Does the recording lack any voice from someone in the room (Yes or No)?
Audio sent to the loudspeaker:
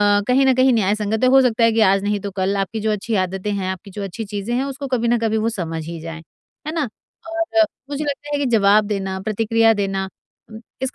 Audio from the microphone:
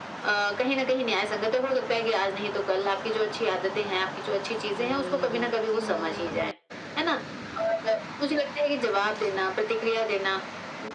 Yes